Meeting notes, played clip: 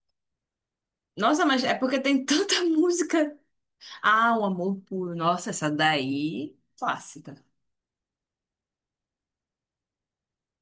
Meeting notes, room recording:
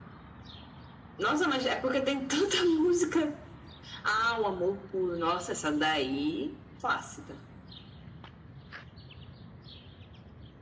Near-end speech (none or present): none